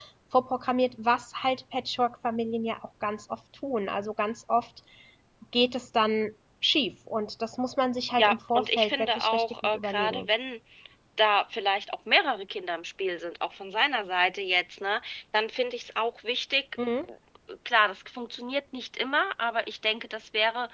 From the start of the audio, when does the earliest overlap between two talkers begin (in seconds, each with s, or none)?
8.2 s